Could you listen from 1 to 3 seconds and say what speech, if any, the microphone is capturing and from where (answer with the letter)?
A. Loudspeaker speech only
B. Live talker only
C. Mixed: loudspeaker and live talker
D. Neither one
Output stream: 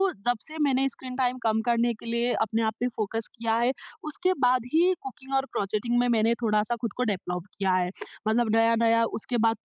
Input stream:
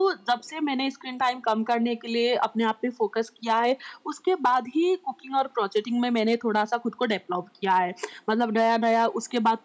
A